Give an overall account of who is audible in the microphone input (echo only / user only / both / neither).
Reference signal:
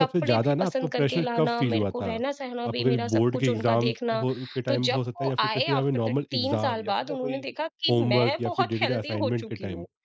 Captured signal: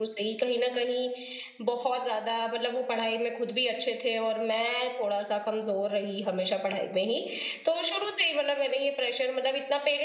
user only